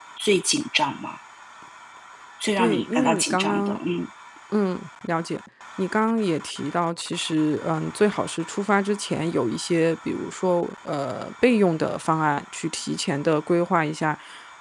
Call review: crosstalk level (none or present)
present